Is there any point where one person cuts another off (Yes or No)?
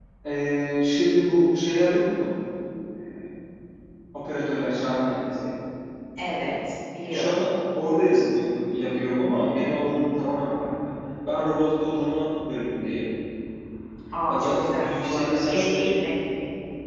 Yes